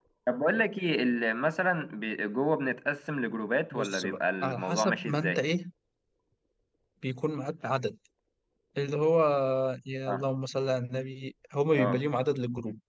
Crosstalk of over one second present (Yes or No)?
Yes